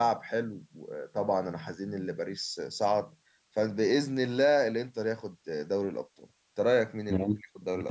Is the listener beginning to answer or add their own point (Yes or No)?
Yes